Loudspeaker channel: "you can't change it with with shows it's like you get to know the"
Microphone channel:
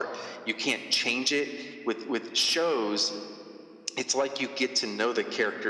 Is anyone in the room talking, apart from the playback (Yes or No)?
No